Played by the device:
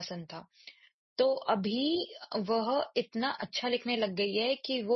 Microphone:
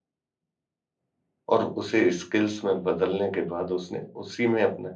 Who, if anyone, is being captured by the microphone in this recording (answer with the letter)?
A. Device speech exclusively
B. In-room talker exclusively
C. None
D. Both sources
B